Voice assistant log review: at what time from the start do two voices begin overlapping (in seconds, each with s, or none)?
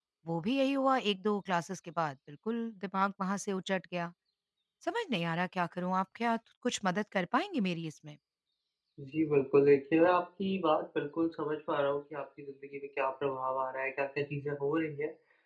none